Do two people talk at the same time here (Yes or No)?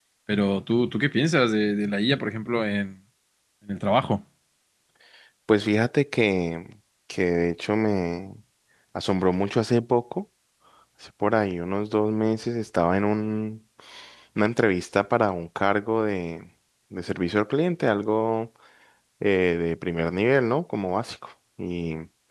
No